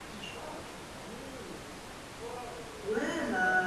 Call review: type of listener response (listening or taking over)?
taking over